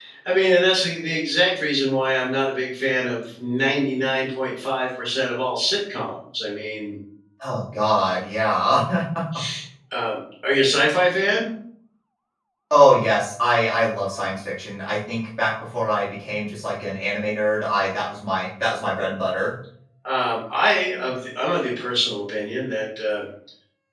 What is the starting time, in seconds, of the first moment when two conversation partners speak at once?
none

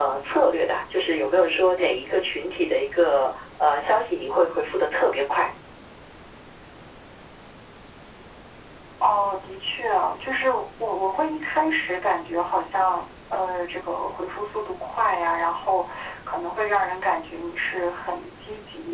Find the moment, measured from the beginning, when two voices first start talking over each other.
none

